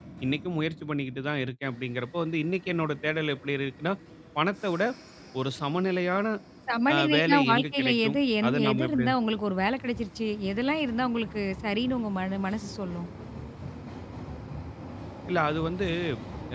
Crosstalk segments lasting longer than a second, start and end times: 6.9-9.1

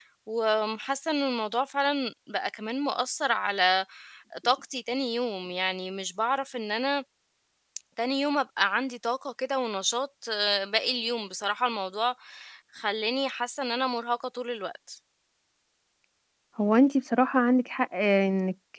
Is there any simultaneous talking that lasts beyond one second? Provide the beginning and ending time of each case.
none

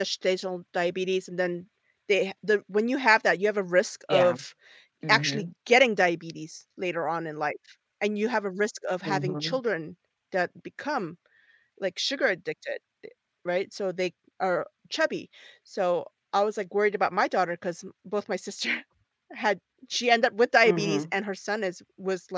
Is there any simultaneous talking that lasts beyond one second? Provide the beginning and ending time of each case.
none

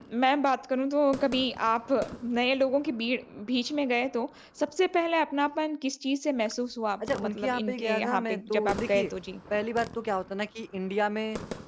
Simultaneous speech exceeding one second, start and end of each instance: 7.0-9.1

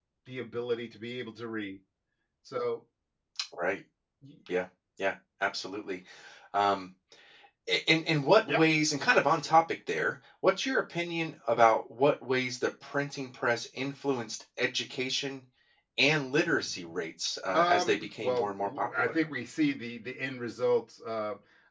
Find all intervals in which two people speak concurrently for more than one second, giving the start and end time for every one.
17.5-19.1

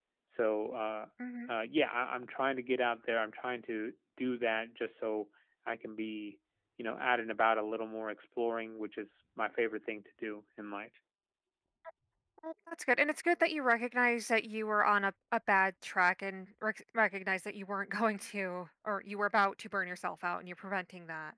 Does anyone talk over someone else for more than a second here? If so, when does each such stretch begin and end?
none

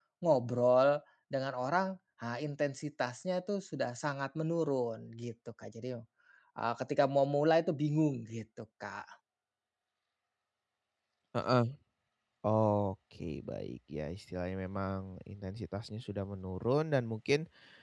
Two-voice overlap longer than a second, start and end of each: none

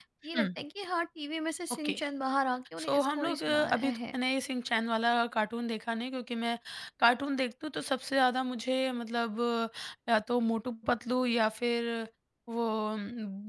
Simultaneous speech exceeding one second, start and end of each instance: 2.8-4.1

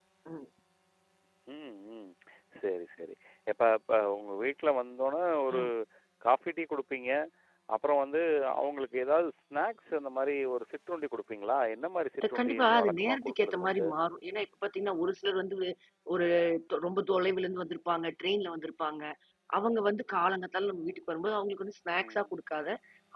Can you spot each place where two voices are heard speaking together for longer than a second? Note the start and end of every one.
12.3-13.9

